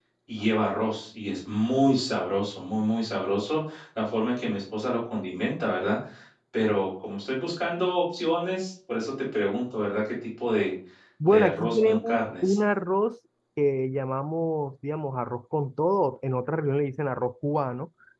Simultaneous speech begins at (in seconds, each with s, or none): 11.2 s